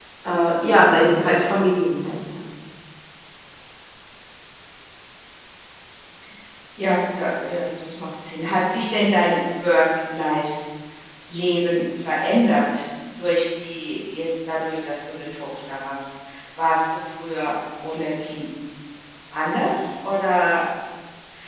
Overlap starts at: none

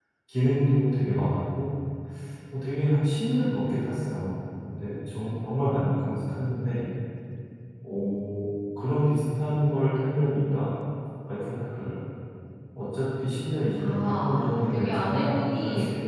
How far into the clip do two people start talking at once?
14 s

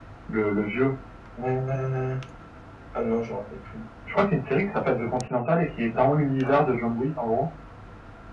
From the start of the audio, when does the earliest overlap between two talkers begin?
none

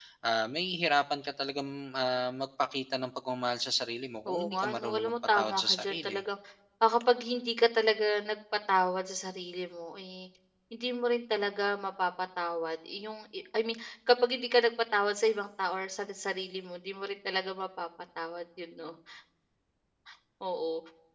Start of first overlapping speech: 4 s

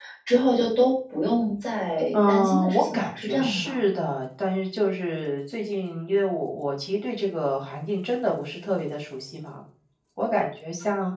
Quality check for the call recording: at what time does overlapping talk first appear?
2 s

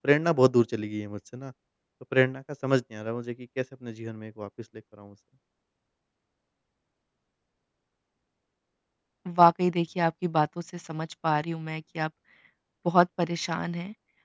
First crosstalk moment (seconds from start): none

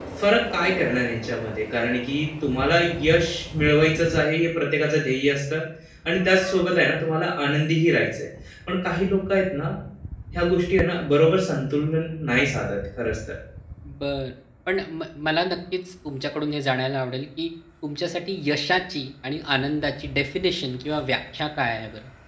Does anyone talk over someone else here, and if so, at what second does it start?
none

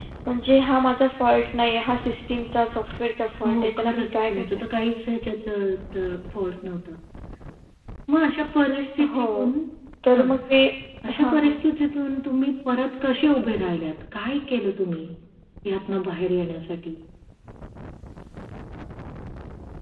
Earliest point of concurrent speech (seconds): 3 s

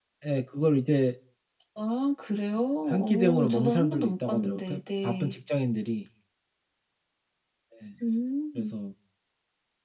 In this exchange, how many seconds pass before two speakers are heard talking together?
3 s

